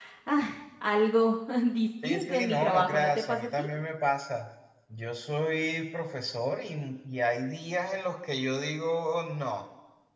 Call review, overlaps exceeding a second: present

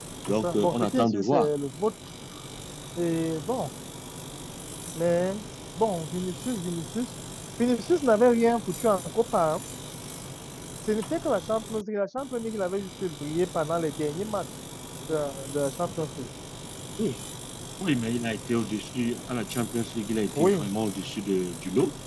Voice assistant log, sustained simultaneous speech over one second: present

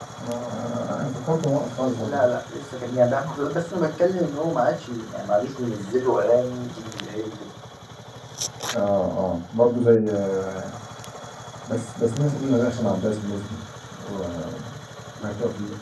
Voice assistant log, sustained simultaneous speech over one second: none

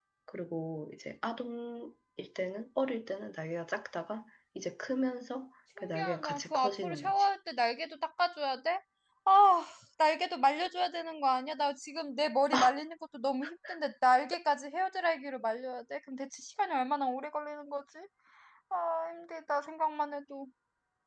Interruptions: present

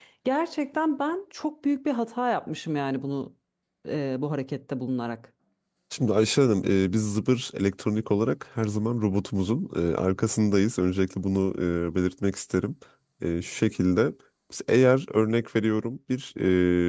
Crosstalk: none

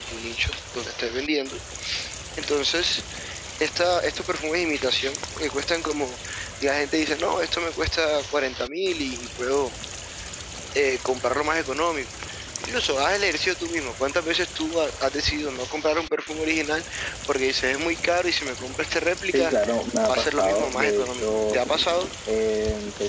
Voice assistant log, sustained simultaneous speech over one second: present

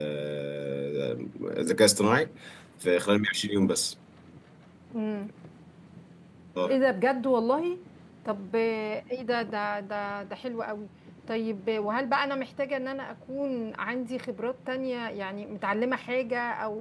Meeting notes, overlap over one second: none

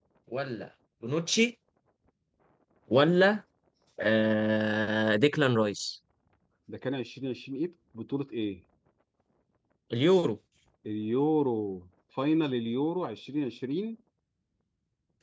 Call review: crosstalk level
none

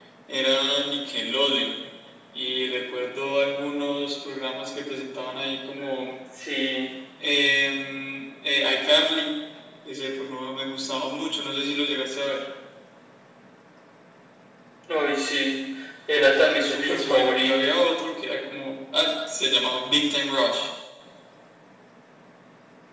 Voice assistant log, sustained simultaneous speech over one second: present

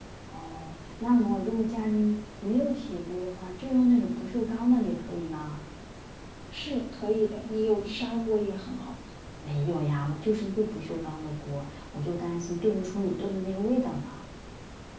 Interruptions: none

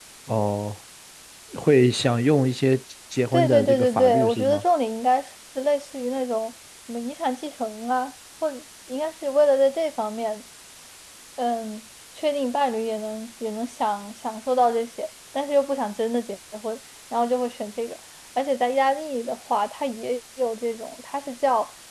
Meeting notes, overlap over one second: present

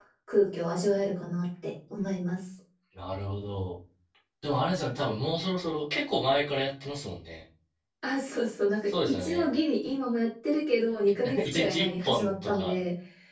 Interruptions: present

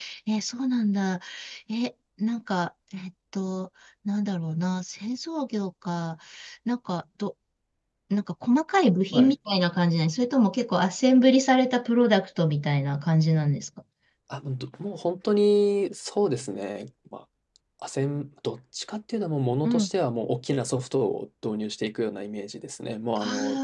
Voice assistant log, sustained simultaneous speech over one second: none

